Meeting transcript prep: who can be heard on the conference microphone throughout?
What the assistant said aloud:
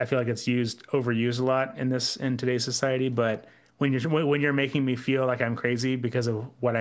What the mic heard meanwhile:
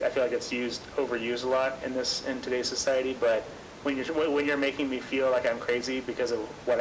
echo only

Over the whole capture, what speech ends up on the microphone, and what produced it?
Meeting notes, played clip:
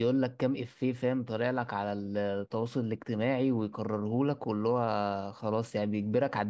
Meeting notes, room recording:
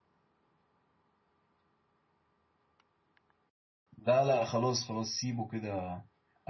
user only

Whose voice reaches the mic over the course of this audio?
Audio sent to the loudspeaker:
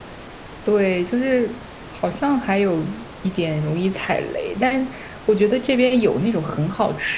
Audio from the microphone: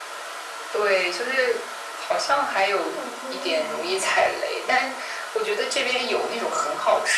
both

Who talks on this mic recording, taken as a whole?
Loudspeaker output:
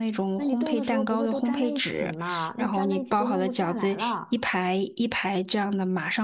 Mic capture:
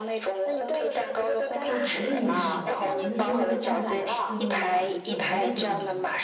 both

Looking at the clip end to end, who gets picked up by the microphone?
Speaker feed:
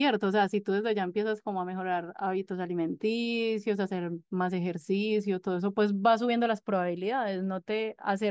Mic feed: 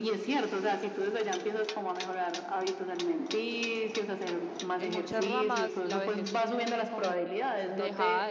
both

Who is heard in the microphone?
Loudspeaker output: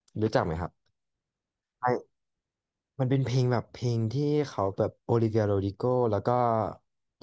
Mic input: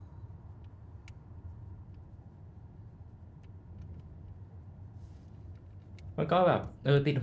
user only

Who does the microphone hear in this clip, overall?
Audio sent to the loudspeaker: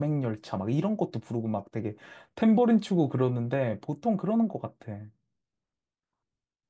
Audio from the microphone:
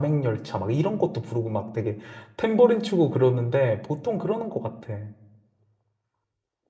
echo only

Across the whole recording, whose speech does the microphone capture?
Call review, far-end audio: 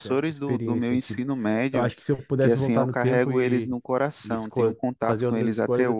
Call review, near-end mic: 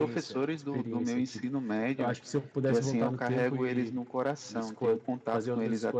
echo only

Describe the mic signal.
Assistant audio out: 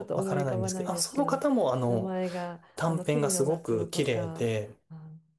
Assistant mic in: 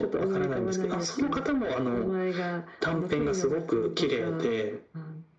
echo only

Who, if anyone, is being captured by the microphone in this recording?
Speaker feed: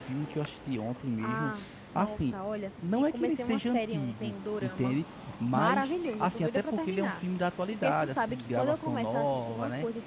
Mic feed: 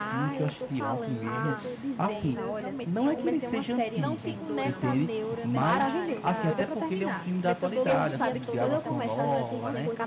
both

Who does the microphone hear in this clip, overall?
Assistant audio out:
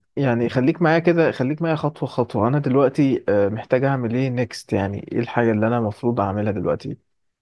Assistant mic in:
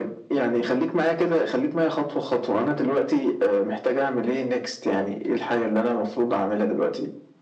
echo only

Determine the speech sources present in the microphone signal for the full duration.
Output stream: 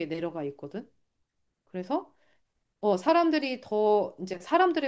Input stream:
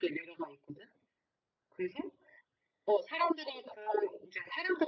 echo only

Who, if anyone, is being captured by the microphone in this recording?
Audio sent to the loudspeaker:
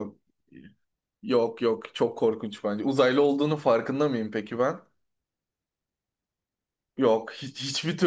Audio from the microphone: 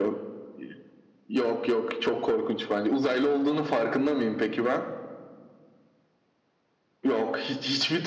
echo only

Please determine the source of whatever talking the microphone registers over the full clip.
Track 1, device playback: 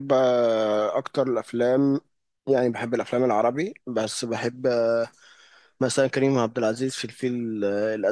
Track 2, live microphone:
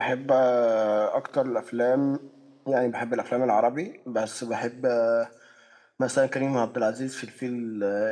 echo only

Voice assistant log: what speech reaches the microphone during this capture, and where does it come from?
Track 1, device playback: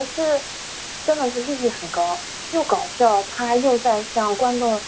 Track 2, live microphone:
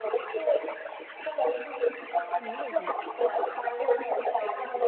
both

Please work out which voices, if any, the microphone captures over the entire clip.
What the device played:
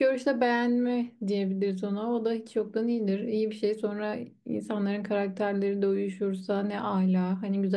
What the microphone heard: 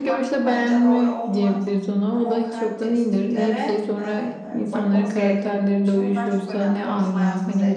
both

